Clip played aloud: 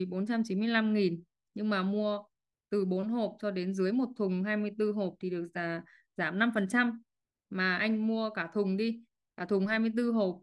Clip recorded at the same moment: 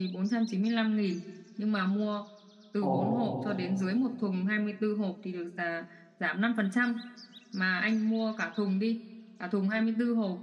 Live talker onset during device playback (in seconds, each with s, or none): 2.8 s